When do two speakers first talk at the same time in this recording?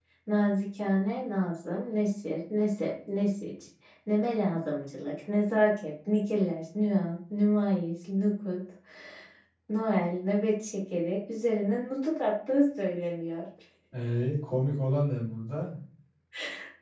none

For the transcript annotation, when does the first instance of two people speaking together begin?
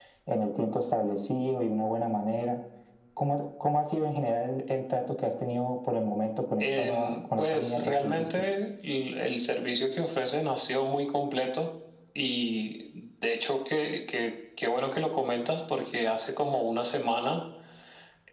6.6 s

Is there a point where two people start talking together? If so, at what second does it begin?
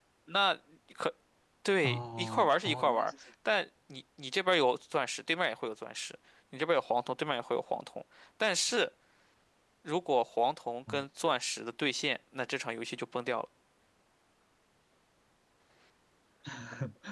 1.8 s

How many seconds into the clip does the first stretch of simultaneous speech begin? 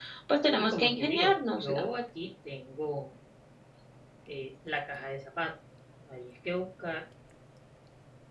0.6 s

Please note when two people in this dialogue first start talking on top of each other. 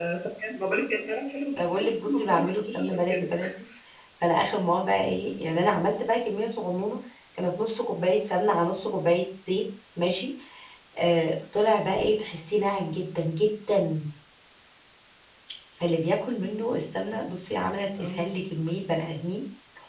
1.6 s

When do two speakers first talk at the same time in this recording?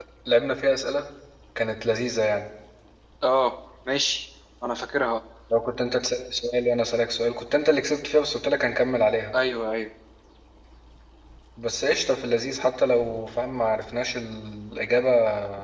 none

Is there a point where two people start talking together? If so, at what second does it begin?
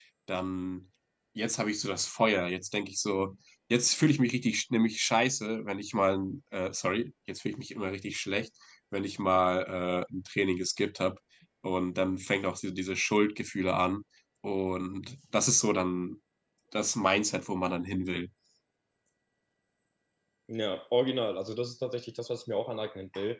none

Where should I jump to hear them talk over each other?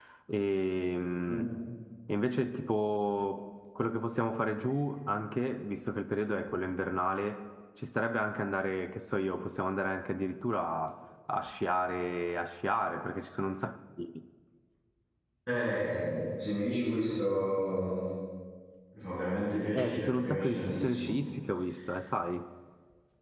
19.8 s

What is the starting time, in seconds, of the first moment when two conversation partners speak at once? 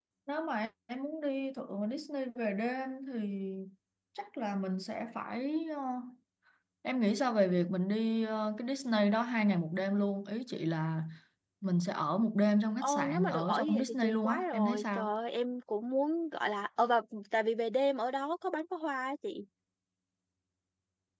12.8 s

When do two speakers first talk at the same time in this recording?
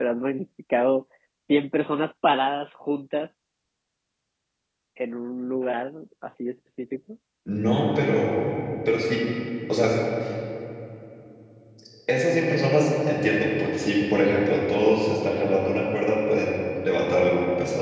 none

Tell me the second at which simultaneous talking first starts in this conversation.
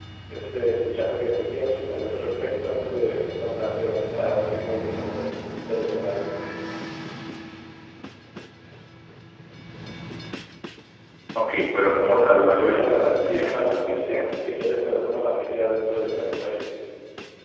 11.9 s

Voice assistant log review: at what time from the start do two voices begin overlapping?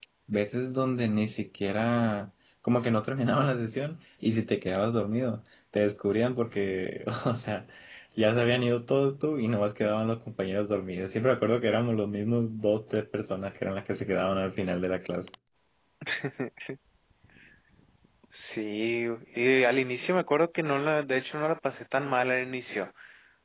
none

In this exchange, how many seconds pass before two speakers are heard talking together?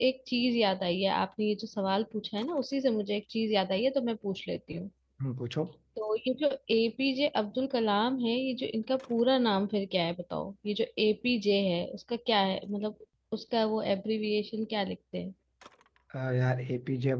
none

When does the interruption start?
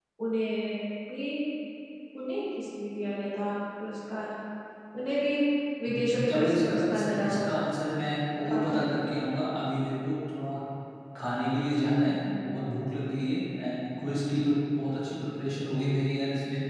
5.9 s

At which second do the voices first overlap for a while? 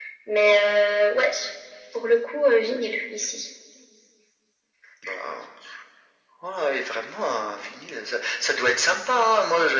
none

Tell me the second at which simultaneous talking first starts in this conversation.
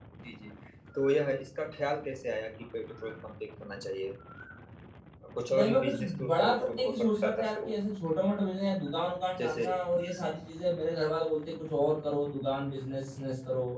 5.6 s

